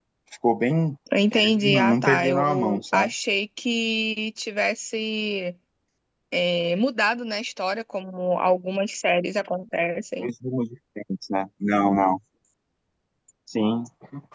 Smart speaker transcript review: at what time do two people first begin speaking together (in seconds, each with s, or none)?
1.1 s